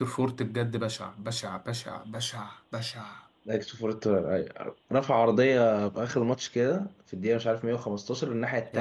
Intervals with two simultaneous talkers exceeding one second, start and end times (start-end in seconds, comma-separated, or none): none